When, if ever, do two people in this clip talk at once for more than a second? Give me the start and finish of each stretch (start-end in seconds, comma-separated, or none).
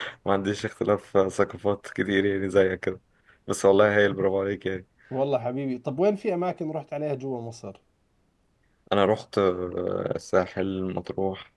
none